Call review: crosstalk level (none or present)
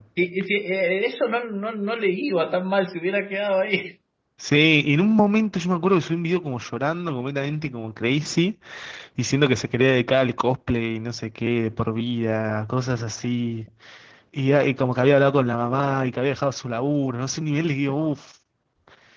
none